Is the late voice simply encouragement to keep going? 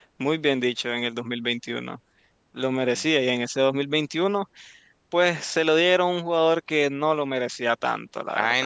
No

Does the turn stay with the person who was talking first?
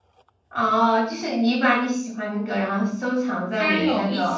No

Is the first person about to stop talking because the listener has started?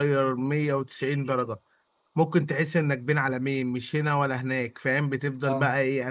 No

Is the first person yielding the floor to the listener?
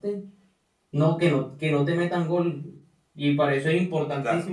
No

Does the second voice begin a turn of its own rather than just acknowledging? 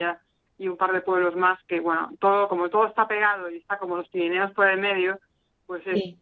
No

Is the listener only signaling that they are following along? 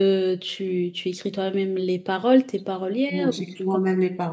No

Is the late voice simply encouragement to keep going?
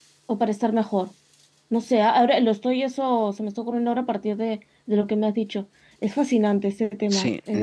No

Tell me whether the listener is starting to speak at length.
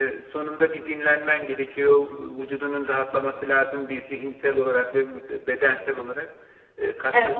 No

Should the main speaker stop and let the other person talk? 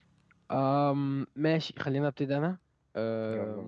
No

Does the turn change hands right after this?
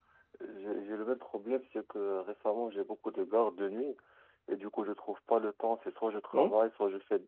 No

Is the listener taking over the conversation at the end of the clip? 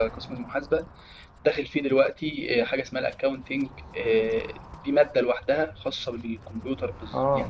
Yes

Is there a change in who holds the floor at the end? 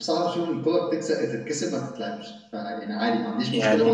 No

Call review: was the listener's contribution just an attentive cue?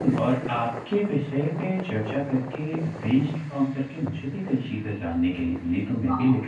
Yes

